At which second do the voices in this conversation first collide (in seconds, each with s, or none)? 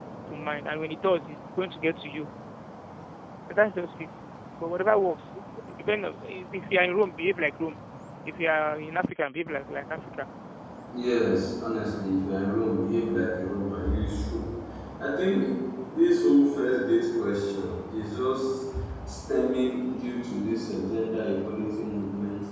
none